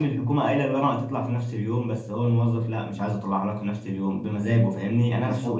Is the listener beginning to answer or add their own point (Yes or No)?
No